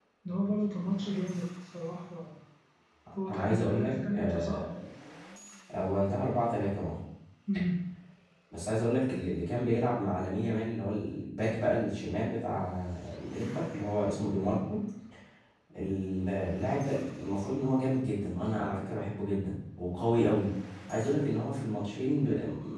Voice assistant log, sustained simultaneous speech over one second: present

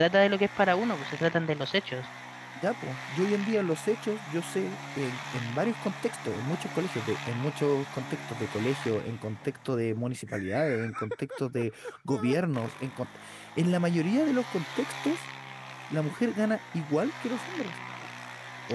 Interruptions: none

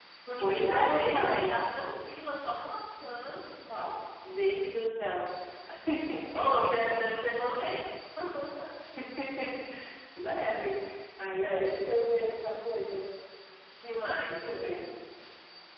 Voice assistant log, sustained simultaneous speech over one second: present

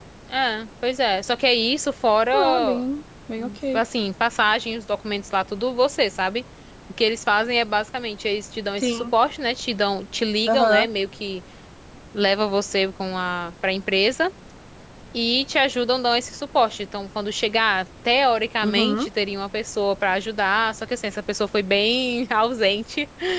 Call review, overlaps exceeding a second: none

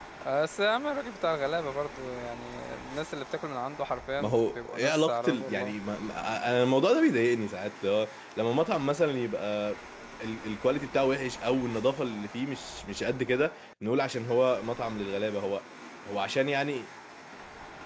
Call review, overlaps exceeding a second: present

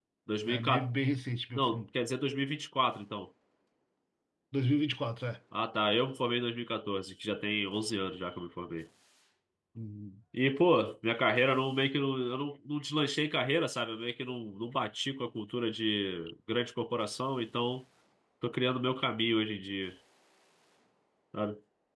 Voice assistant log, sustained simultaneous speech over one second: none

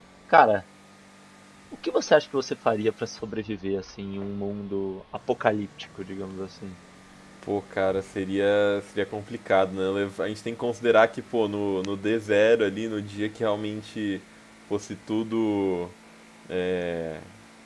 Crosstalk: none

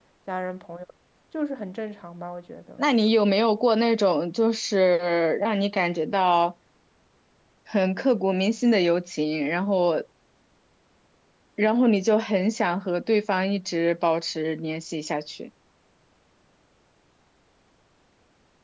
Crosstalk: none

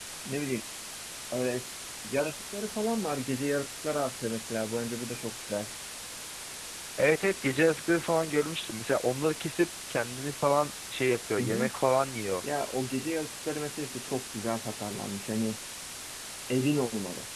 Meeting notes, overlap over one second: none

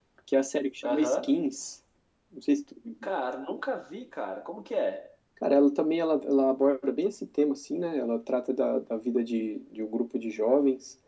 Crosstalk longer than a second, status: none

